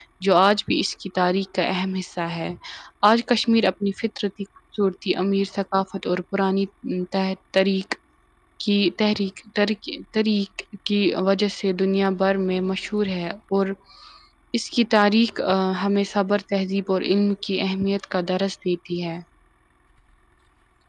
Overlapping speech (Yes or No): No